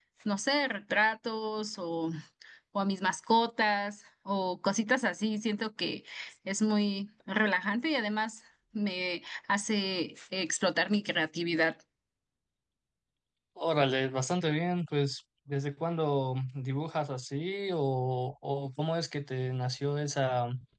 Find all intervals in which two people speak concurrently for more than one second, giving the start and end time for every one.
none

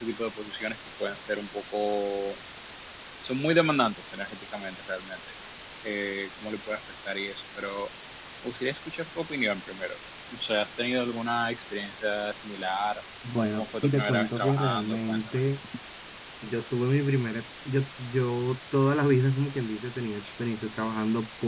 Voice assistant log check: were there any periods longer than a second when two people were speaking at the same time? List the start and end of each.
13.5-15.2

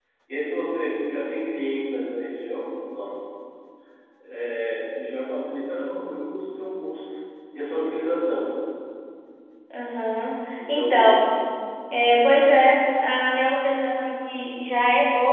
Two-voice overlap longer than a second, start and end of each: none

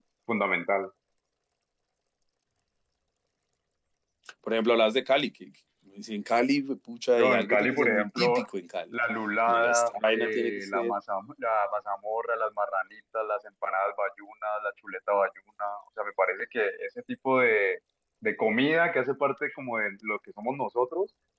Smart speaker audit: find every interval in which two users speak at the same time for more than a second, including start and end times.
7.2-8.4, 9.5-10.9

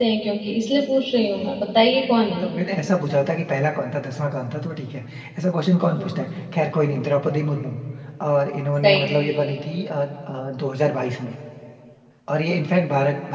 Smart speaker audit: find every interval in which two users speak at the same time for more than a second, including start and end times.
none

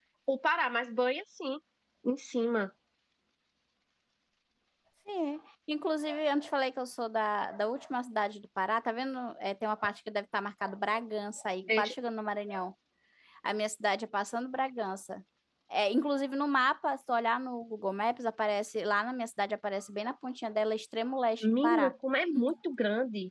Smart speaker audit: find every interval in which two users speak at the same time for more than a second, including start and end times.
none

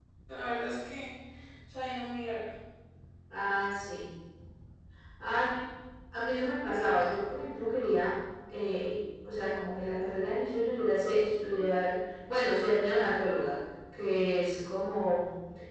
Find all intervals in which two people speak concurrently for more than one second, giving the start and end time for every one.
none

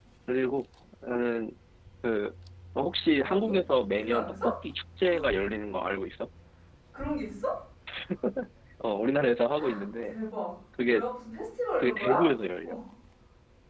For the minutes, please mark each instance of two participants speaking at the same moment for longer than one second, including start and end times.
none

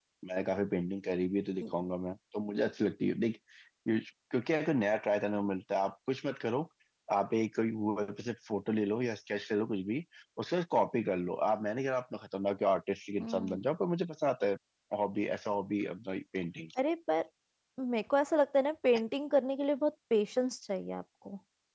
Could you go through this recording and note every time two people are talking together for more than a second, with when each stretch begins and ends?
none

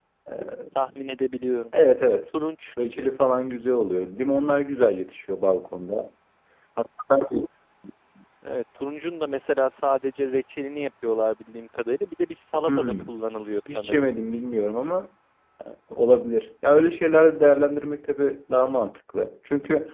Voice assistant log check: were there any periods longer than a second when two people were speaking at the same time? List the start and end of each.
none

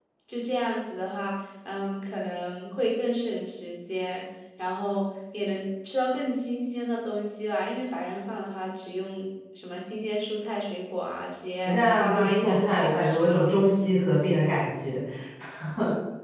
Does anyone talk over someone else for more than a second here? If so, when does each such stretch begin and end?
11.6-13.5

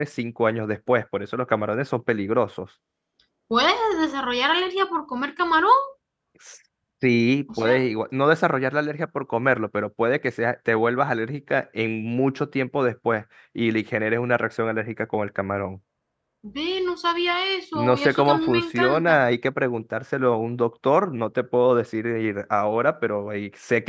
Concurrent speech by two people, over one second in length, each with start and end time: 17.8-19.2

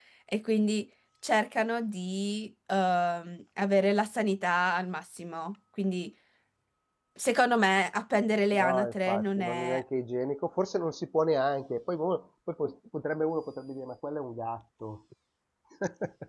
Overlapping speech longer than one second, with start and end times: 8.5-9.8

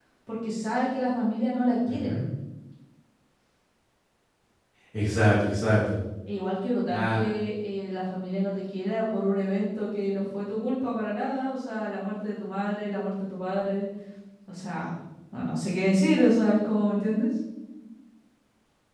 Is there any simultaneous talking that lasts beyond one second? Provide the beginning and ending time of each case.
none

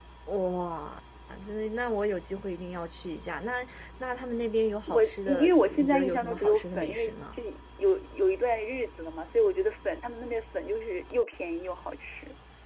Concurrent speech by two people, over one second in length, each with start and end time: 4.9-7.4

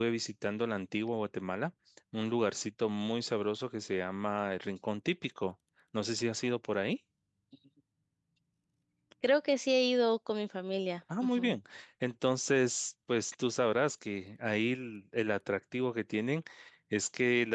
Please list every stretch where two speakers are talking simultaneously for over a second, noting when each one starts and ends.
none

